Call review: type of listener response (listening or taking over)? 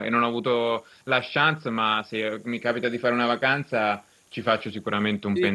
taking over